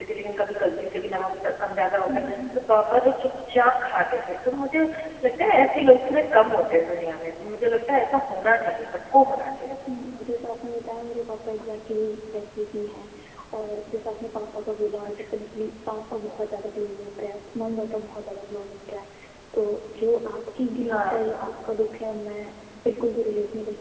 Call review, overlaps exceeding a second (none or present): none